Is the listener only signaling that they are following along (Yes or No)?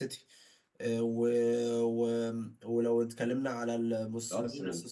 Yes